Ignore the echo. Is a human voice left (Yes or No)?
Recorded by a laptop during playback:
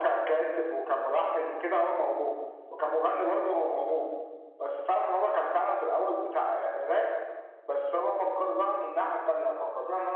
No